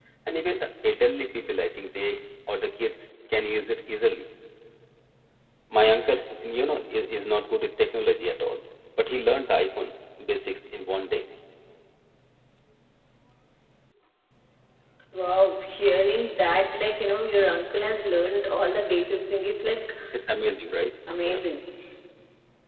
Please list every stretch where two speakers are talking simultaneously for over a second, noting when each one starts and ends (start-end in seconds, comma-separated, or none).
none